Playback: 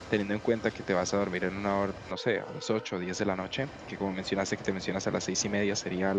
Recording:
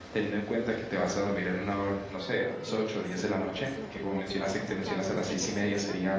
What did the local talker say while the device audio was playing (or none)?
eh, siempre, pues, lo prim la primera cosa que hago es ejercicio.